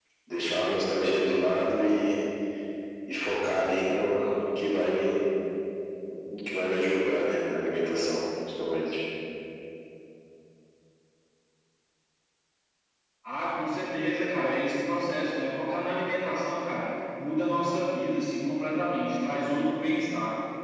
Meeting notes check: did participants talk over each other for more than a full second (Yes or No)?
No